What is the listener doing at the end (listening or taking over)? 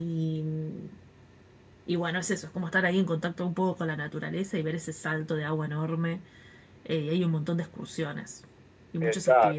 taking over